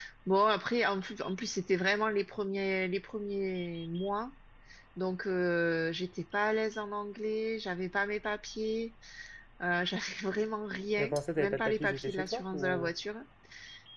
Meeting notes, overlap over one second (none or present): present